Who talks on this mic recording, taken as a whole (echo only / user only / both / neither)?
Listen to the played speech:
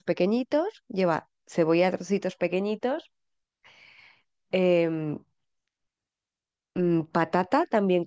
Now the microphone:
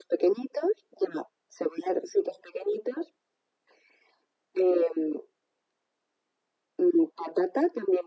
echo only